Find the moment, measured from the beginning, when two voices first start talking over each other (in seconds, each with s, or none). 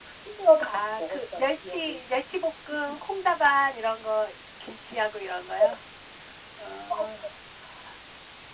0.6 s